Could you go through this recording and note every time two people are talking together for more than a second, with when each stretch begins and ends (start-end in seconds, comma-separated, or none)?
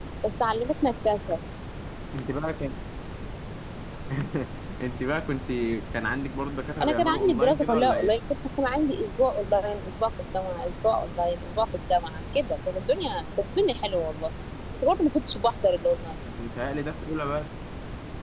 6.8-8.2